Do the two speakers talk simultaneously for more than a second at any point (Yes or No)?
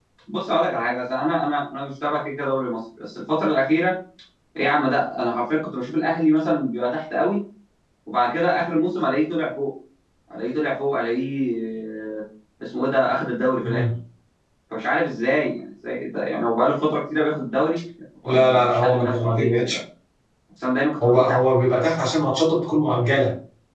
Yes